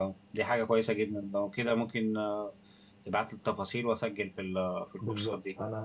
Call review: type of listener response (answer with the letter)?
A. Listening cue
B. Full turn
B